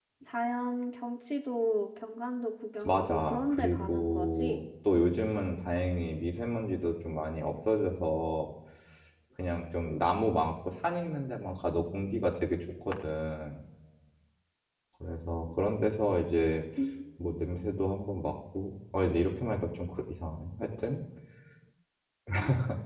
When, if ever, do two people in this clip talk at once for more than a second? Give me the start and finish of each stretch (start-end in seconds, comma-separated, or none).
2.8-4.6